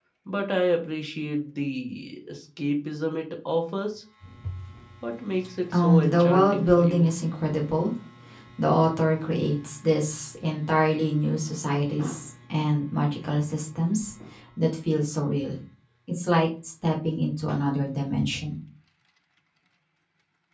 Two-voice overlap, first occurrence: 5.7 s

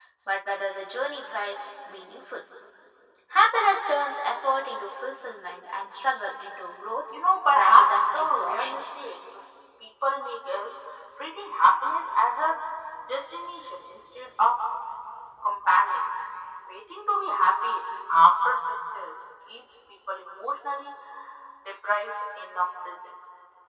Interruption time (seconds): 7.5 s

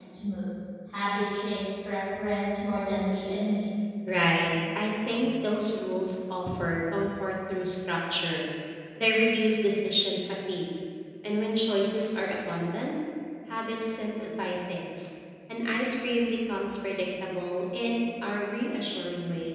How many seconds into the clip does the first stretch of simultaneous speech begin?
none

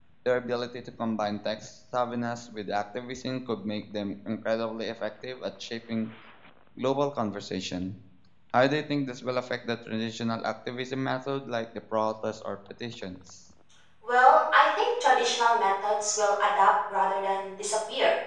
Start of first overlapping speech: none

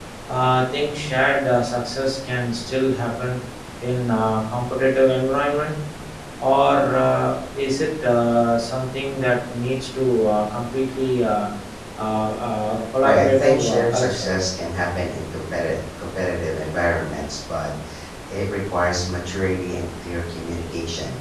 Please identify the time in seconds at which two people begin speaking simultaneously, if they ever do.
13.0 s

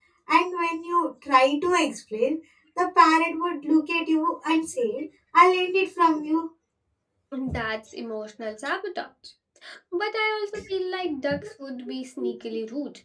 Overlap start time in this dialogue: none

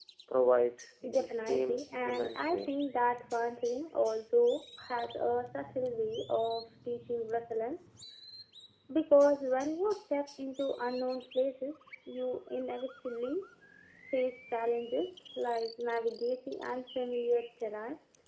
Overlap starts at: 1.1 s

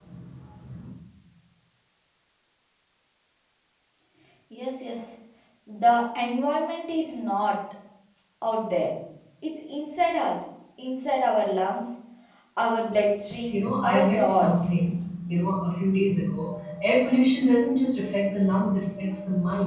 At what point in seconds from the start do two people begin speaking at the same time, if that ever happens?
13.3 s

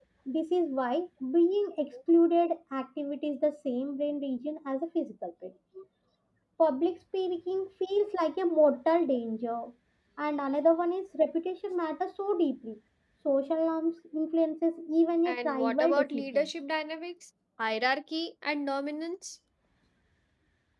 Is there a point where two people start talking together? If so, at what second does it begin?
15.2 s

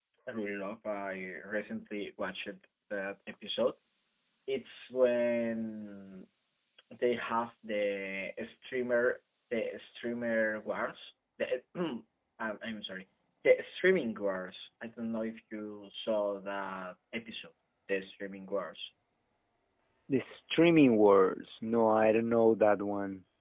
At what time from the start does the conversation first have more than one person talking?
none

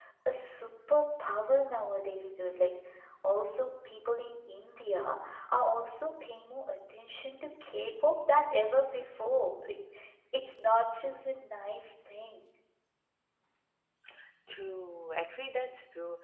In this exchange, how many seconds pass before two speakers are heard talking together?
none

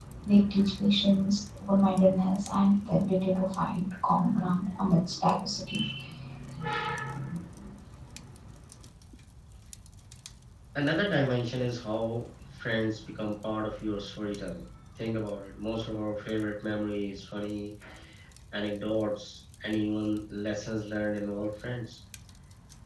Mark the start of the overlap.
none

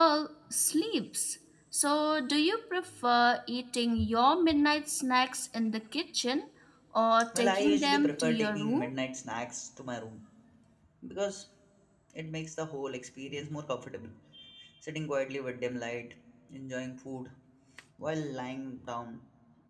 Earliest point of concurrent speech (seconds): 7.4 s

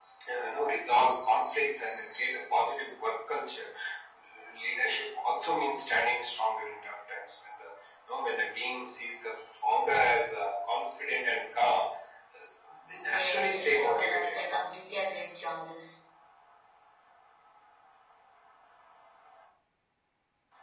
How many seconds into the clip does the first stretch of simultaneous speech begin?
13.1 s

